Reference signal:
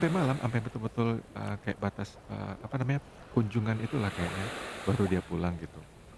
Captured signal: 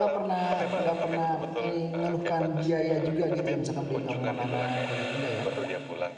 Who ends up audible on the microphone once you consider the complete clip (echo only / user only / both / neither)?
both